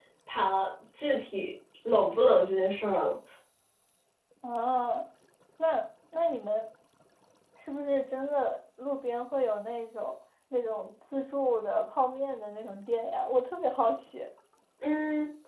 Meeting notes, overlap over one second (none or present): none